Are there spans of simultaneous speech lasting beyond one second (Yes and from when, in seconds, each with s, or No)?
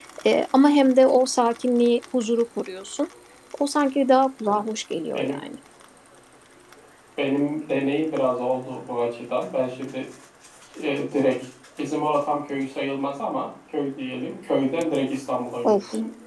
No